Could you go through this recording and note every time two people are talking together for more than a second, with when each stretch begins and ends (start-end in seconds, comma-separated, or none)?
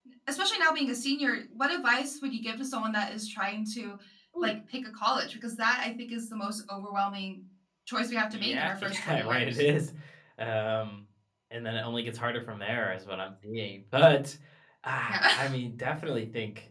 8.3-9.6